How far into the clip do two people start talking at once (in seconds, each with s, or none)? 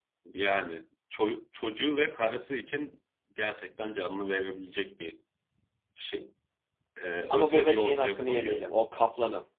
7.3 s